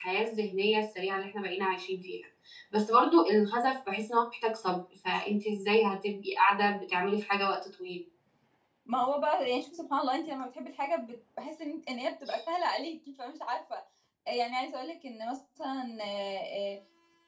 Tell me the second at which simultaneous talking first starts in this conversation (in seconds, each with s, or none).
none